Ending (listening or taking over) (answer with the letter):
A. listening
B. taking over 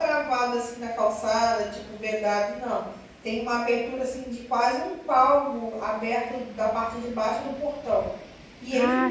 A